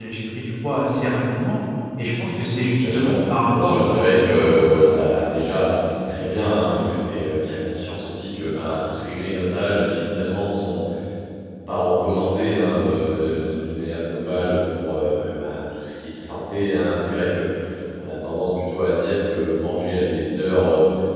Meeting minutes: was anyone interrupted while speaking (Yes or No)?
Yes